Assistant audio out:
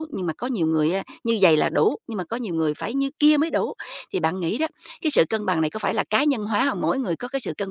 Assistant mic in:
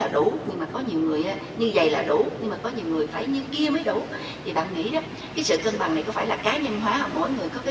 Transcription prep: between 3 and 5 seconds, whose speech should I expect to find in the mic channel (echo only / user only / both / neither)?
echo only